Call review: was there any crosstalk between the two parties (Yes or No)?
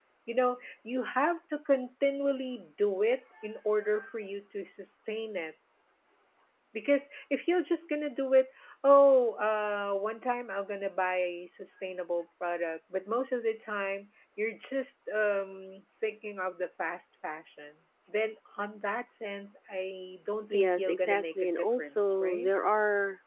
Yes